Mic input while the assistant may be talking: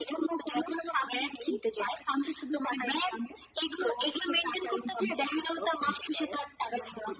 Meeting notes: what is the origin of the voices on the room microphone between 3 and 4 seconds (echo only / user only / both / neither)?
echo only